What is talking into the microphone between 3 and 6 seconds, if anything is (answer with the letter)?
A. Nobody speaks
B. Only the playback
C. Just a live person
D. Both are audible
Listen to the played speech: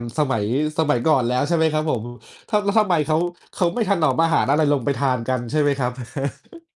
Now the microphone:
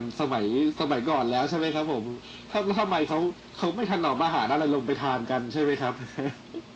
B